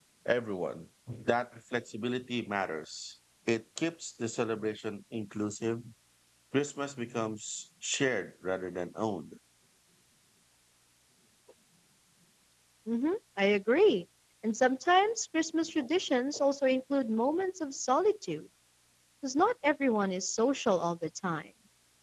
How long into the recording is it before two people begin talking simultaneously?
none

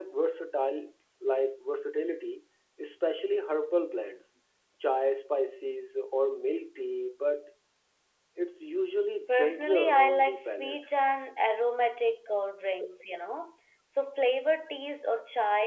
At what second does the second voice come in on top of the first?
9.3 s

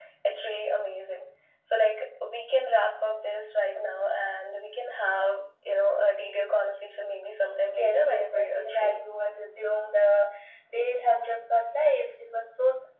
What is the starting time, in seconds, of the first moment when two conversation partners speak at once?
7.7 s

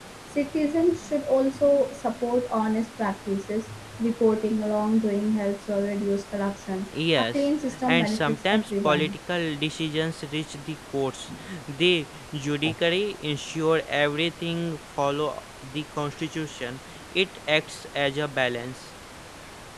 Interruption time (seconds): 6.9 s

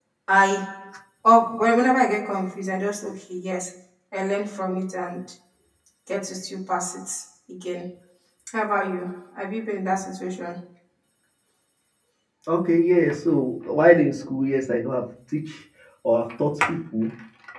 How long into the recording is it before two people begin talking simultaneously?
none

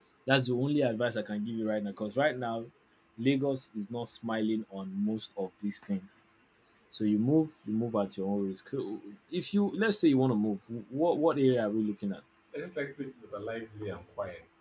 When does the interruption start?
none

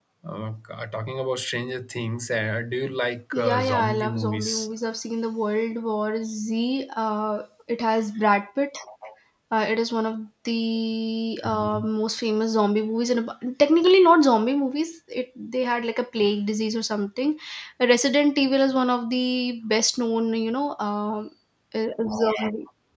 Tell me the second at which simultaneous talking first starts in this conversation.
3.3 s

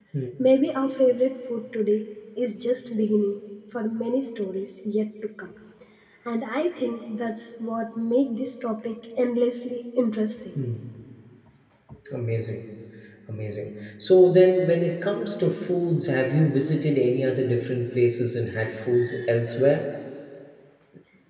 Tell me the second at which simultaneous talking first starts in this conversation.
none

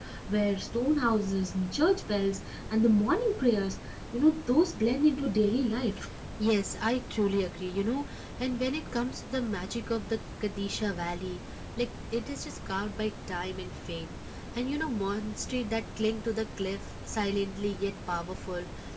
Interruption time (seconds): none

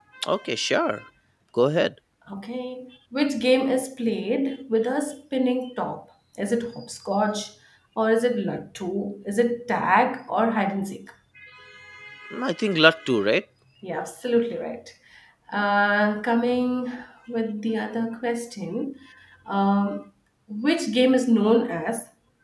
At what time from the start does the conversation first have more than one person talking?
none

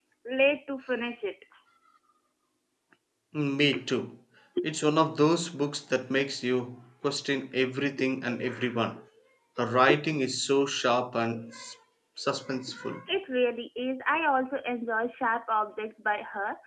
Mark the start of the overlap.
none

